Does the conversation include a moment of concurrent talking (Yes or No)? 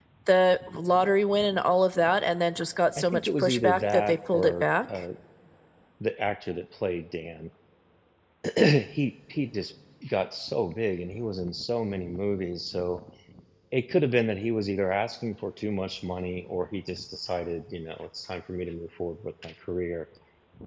Yes